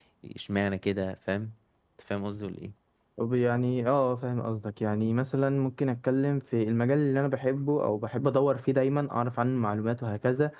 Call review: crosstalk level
none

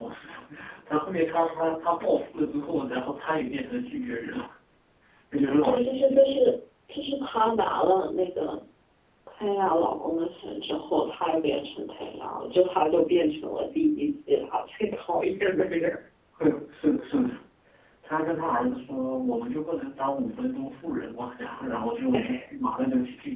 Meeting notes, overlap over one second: none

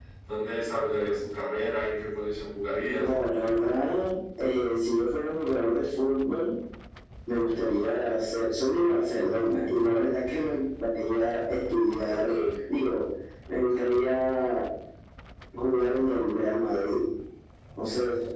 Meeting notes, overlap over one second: none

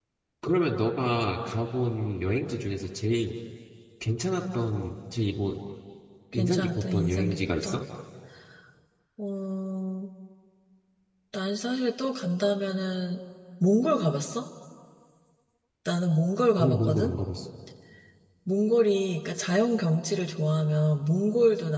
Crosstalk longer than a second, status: present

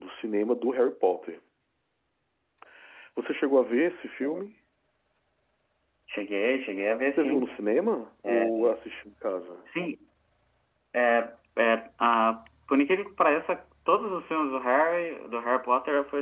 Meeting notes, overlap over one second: none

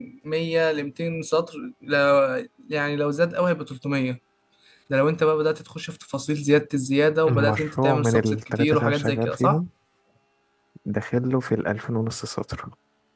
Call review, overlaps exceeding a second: present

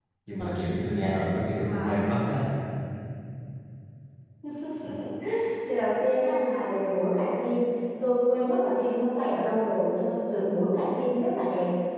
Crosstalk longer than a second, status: none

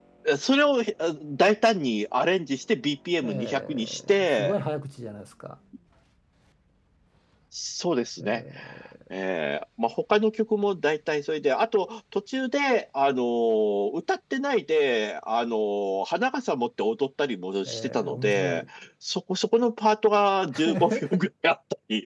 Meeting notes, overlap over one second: present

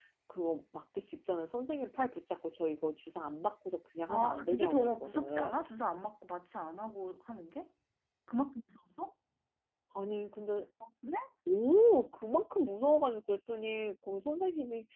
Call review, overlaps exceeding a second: present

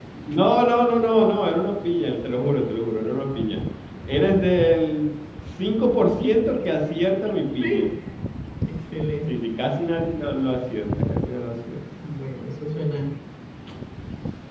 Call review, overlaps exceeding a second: none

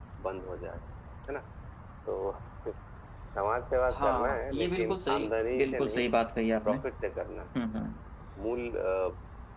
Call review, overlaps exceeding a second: present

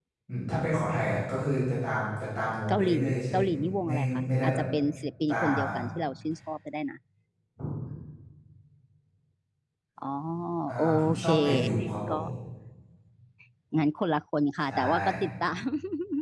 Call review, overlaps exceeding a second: present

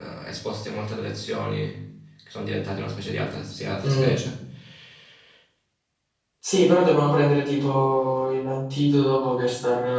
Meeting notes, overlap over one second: none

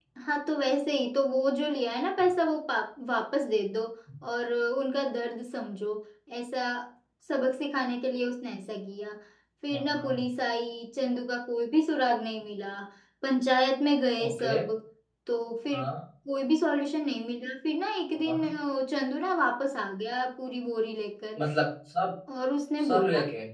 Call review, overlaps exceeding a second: none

